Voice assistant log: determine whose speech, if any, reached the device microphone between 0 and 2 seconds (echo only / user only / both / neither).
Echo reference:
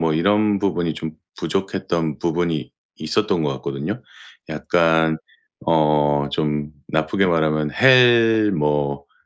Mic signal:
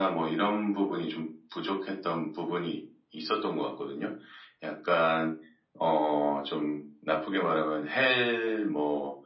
echo only